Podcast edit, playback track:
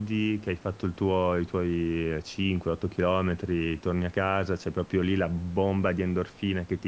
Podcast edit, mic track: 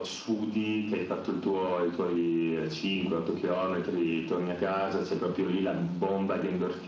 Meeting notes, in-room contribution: none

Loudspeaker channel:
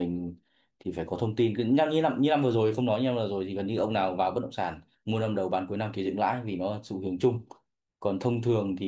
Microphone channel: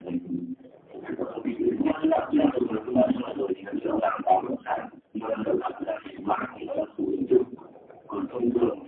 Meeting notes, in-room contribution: none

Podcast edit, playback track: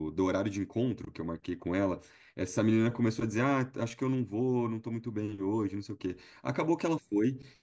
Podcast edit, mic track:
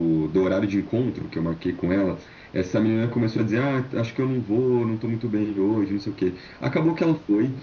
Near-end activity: none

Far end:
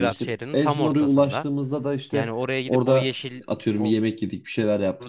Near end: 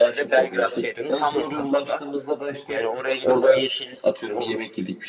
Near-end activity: none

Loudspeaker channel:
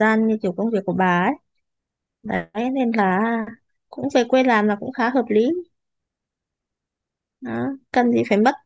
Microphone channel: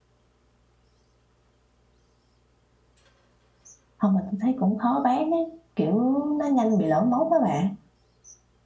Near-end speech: present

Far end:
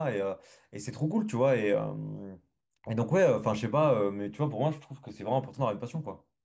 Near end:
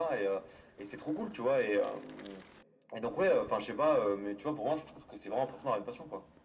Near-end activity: none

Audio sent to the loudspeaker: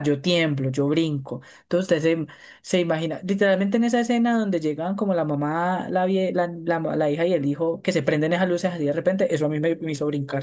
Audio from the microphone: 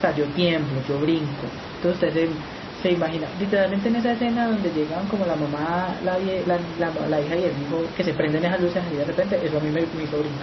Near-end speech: none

